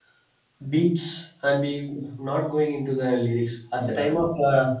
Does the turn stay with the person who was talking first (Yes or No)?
Yes